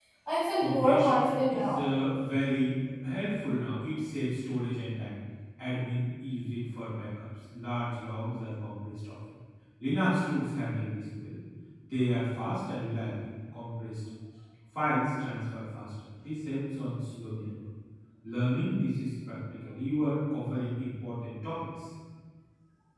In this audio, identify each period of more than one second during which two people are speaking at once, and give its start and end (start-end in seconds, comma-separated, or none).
0.6-1.8